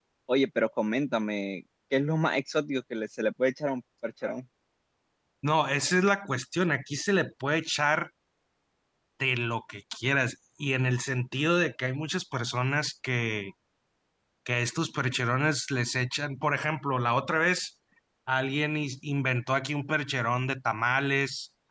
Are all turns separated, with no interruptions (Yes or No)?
Yes